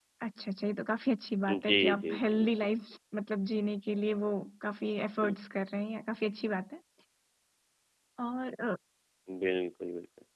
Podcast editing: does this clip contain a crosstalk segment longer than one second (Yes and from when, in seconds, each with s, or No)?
Yes, from 1.5 s